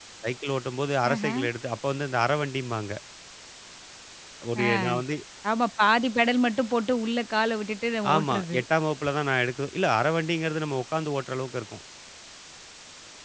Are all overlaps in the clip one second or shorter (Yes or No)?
Yes